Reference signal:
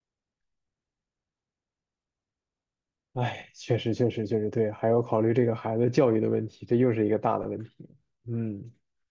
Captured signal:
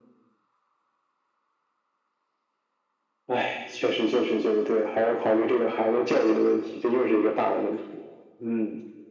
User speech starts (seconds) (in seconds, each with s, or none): none